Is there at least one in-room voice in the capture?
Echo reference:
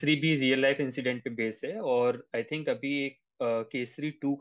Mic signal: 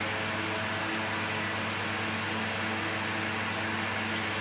No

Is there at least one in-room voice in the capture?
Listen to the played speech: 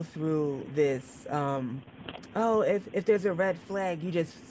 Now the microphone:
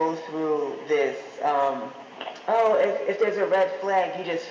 No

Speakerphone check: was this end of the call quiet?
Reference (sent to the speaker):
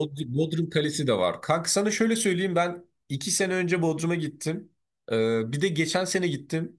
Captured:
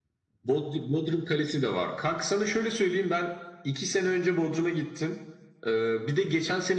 Yes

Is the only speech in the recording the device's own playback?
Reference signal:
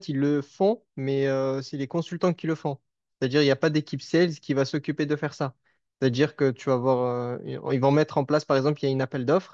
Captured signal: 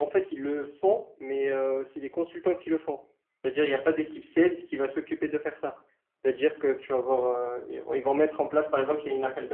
Yes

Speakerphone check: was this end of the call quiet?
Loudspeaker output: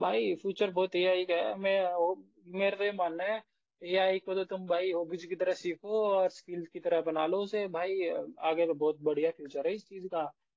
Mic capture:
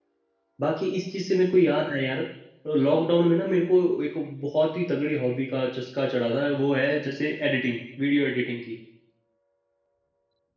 No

